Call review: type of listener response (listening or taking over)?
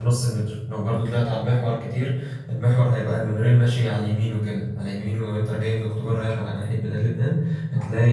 listening